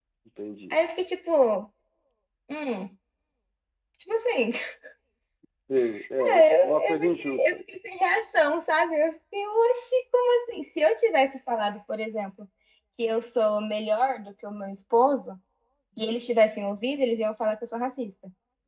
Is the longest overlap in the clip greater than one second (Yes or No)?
Yes